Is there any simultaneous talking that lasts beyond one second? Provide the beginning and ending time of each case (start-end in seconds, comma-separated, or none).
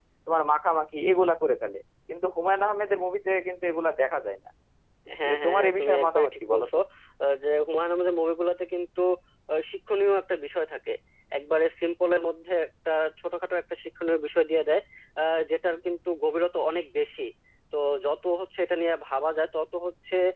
5.3-6.8